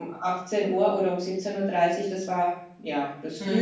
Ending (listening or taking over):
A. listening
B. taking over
B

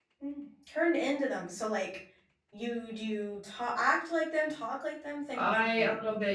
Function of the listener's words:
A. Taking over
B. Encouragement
A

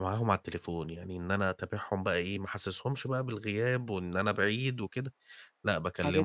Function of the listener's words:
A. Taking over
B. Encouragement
B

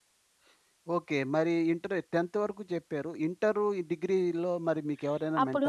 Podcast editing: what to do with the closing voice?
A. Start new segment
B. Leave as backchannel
A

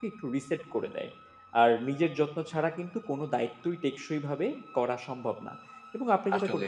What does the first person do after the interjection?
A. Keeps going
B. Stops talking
A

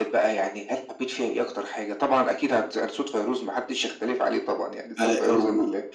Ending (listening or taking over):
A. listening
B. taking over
A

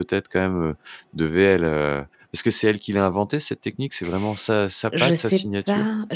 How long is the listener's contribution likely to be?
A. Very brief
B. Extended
B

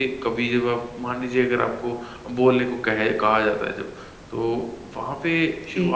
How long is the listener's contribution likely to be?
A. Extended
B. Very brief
B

